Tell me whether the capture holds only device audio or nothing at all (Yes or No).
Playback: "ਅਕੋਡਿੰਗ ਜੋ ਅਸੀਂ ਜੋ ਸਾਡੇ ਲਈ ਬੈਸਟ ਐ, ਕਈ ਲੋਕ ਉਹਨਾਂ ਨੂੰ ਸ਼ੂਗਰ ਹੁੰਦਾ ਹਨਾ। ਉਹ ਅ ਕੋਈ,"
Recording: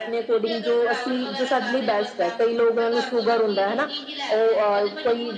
No